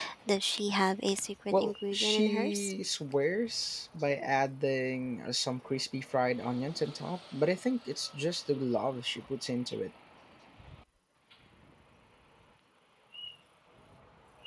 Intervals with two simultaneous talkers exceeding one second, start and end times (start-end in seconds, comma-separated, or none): 1.5-2.7